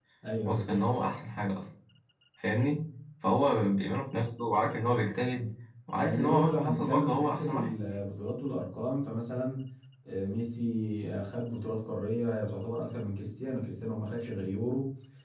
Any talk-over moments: Yes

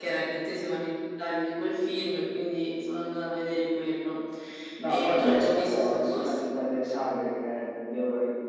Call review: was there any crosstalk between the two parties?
Yes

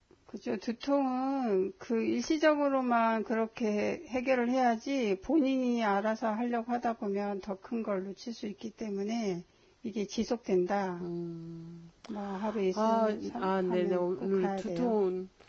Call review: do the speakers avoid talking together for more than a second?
No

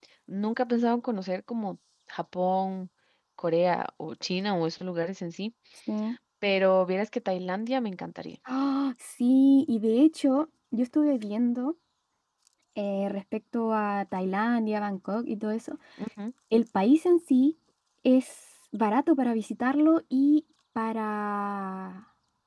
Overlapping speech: No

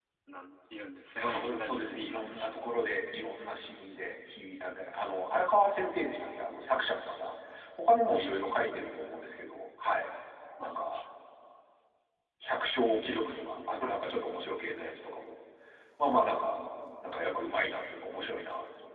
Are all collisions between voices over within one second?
No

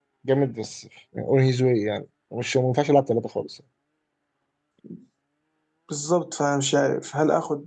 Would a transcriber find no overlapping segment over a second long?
Yes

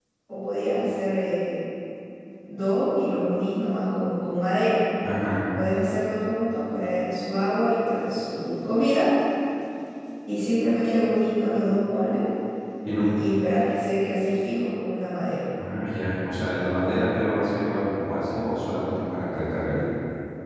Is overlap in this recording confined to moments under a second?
Yes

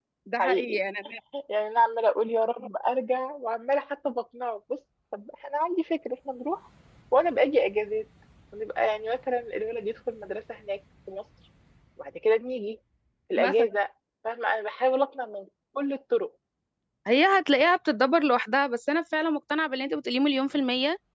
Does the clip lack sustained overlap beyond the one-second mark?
Yes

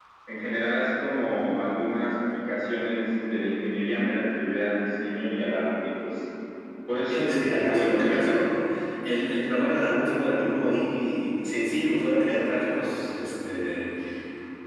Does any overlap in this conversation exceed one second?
Yes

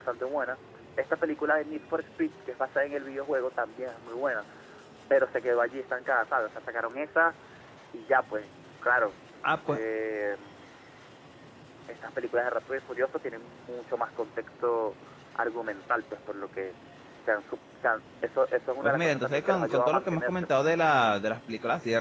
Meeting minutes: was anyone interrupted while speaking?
Yes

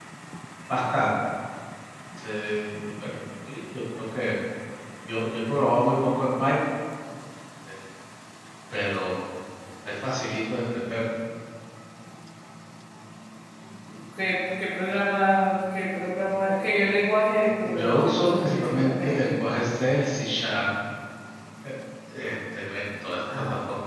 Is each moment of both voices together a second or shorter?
No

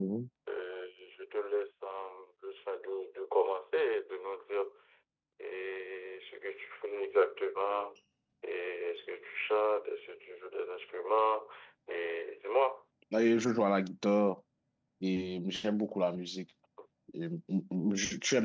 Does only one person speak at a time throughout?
Yes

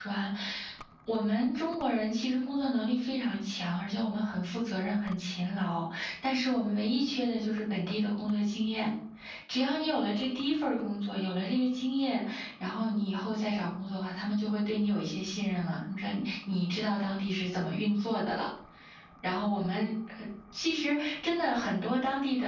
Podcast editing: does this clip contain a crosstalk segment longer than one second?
No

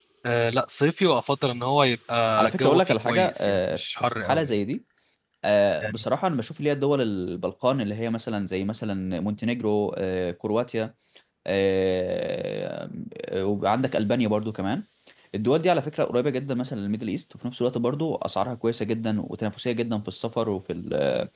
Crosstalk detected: Yes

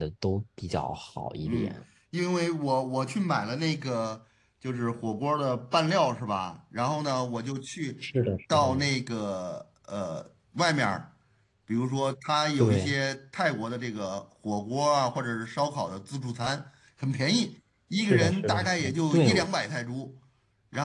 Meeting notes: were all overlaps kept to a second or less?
No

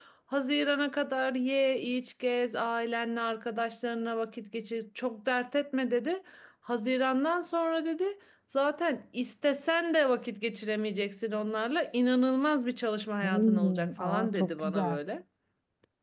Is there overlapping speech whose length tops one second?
Yes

